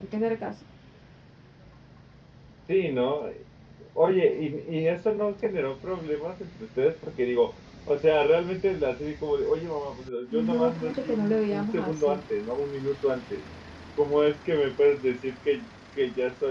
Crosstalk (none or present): present